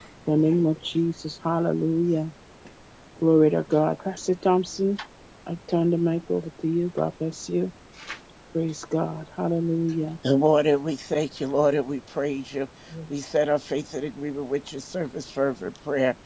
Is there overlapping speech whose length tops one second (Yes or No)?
No